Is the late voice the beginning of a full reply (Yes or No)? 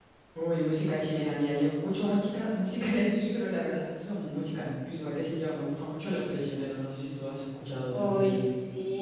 Yes